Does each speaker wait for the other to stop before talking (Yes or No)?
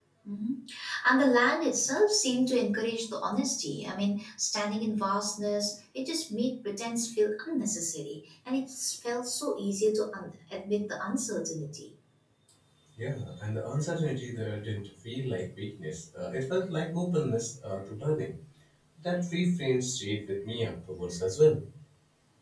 Yes